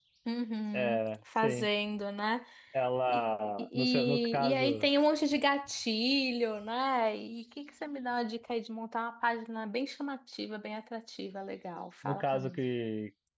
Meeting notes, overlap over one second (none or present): present